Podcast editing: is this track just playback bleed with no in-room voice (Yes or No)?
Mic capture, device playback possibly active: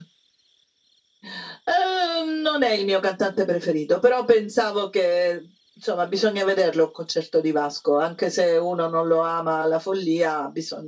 Yes